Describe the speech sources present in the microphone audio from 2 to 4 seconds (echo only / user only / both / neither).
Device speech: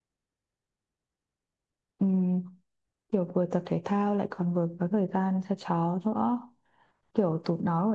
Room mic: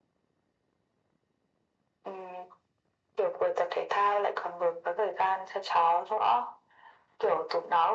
echo only